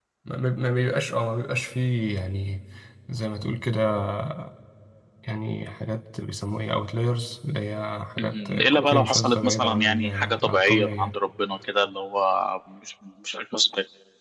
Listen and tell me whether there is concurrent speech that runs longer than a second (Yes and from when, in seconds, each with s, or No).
Yes, from 8.2 s